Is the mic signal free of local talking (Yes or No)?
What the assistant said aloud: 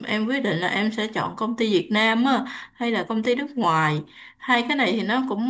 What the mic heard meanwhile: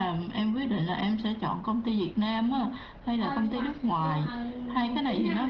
No